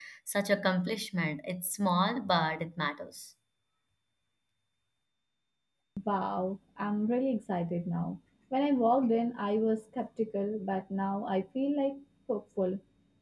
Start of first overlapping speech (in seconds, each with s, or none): none